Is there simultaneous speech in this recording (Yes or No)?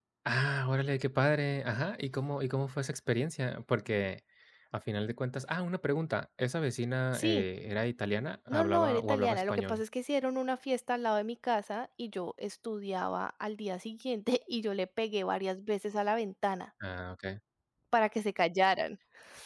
Yes